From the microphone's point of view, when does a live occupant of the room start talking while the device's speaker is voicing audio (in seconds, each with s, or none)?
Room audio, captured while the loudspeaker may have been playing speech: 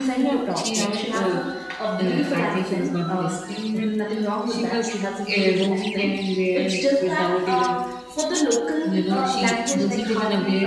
none